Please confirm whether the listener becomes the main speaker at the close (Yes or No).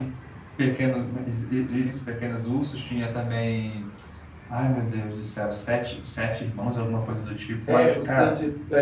Yes